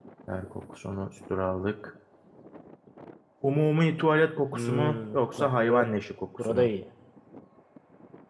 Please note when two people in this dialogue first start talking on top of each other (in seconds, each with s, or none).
4.5 s